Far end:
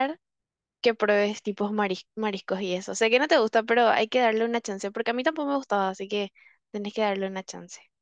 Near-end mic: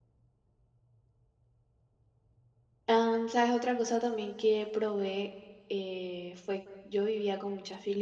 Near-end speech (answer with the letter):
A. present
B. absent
A